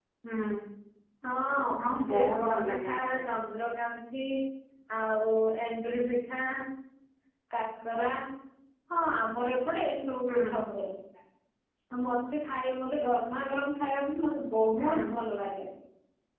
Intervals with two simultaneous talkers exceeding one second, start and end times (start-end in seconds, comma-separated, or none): 1.8-3.2